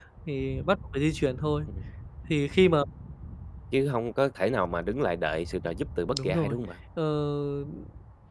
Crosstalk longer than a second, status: none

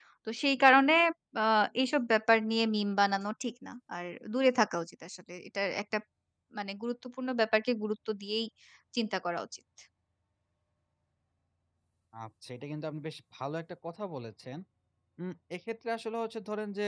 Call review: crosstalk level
none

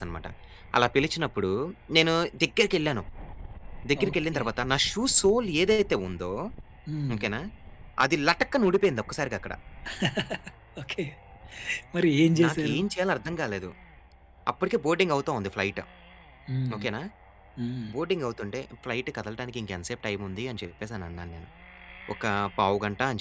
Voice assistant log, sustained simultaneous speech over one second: none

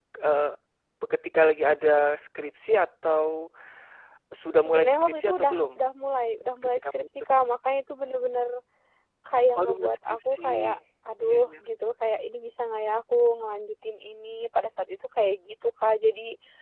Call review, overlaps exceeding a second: present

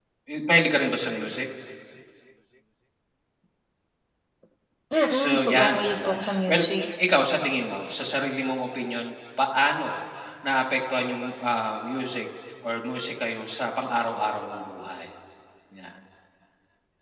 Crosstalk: present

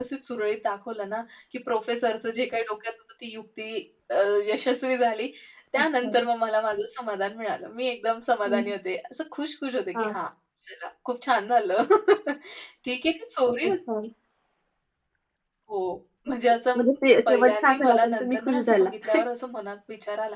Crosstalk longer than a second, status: present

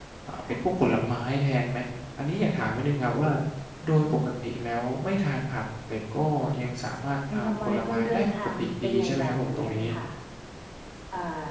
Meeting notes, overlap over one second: present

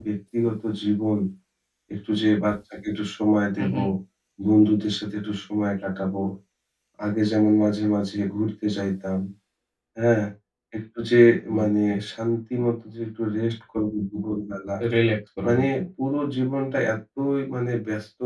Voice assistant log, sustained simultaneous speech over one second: none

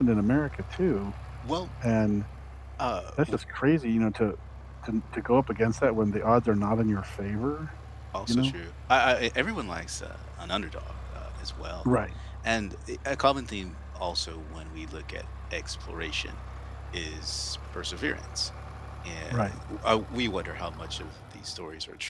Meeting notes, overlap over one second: none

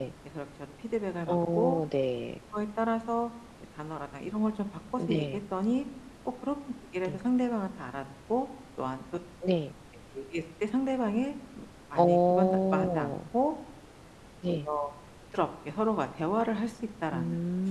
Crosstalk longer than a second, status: present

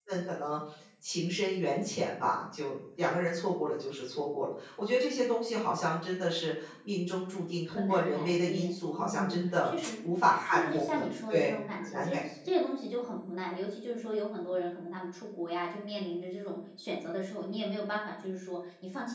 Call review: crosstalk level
present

